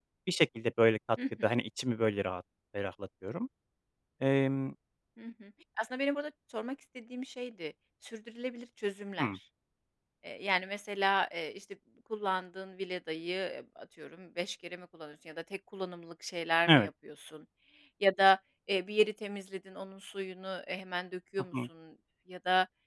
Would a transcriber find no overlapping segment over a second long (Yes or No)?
Yes